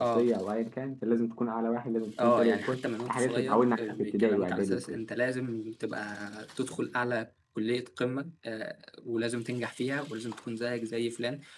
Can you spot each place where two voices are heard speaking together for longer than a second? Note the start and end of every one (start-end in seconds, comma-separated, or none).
2.2-5.0